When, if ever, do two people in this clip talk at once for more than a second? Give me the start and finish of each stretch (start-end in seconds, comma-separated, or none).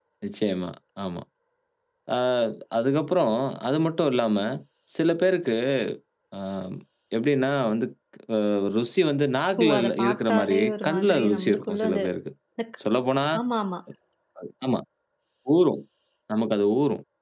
9.6-12.0